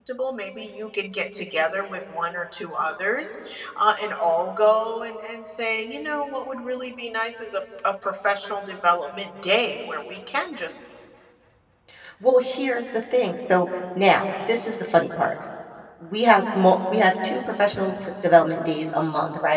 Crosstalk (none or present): none